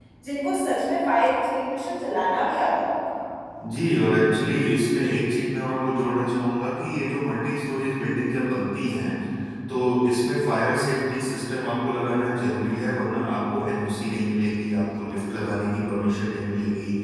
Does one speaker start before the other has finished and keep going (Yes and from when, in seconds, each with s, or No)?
No